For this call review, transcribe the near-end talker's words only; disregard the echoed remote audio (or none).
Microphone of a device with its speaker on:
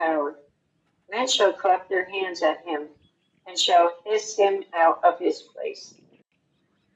none